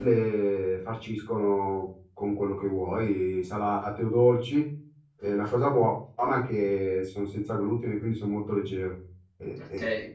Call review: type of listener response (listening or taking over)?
taking over